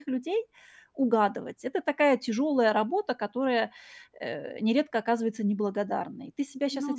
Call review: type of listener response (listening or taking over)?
listening